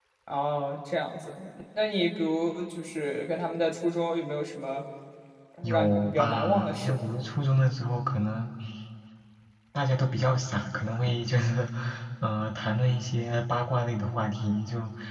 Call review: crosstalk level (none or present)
present